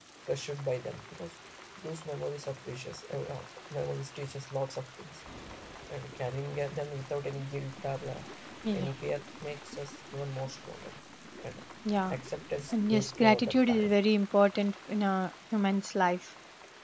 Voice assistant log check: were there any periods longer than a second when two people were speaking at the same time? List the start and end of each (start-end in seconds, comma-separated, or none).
12.7-13.9